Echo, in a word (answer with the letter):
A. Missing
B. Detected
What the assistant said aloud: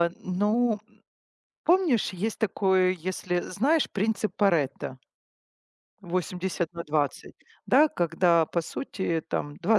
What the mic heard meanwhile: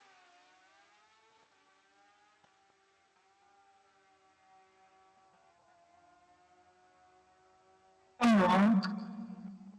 A